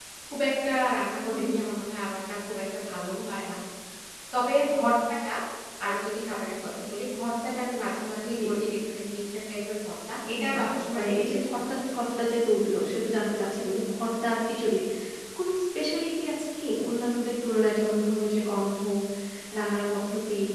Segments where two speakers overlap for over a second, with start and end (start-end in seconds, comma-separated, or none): 10.5-11.7